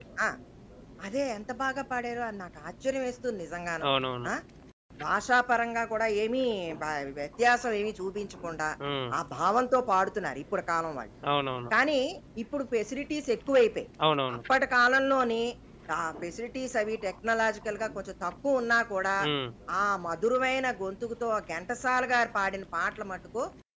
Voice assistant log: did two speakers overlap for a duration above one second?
No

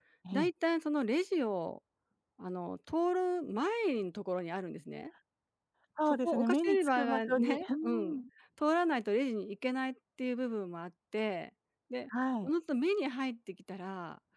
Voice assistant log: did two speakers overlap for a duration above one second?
Yes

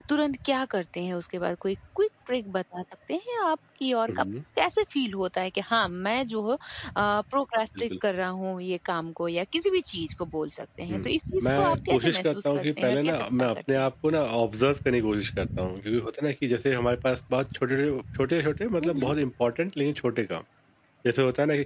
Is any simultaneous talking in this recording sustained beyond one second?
Yes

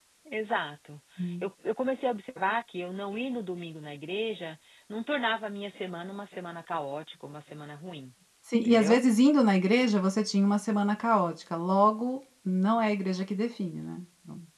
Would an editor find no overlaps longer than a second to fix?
Yes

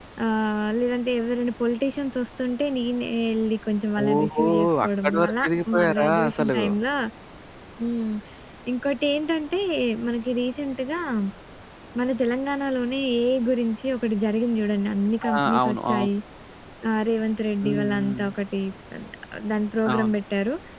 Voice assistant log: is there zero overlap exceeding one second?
No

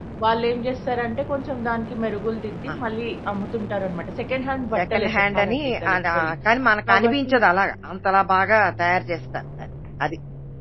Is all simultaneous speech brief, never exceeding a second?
No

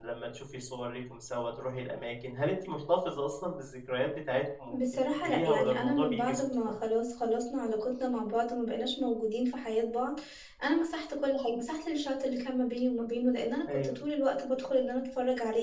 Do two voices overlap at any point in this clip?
Yes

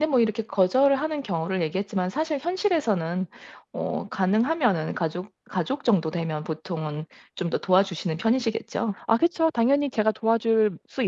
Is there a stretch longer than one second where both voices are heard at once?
No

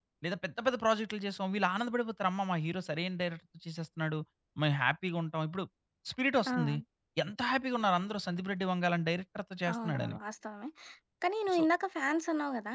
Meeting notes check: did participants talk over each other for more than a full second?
No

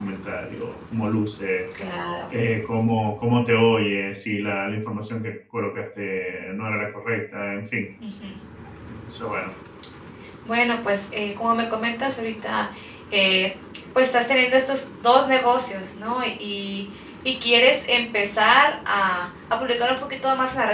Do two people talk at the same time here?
No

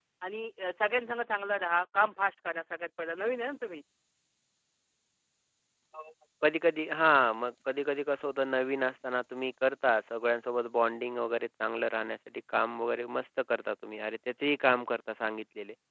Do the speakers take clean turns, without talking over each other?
Yes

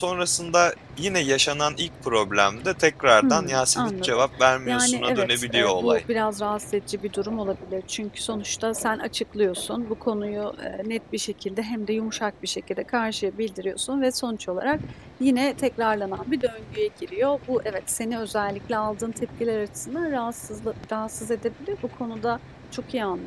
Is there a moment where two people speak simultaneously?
Yes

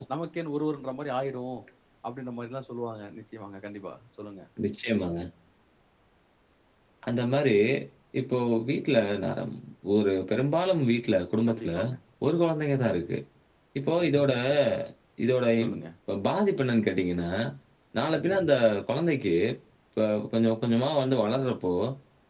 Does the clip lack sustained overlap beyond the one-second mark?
Yes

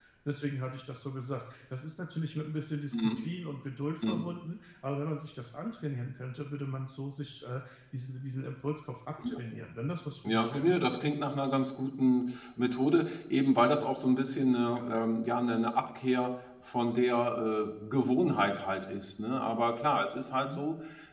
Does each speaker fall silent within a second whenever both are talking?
Yes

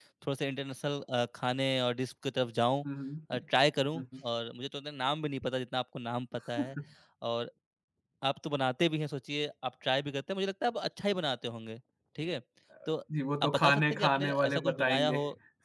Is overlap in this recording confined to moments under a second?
No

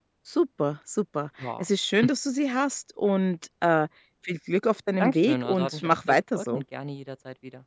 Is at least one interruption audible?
Yes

